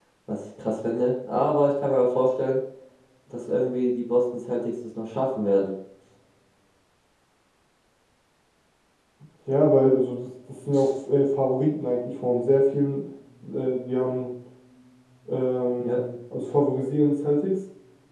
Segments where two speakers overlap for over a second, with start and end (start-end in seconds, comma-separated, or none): none